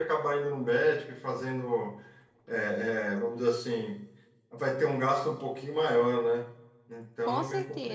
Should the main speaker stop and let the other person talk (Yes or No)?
Yes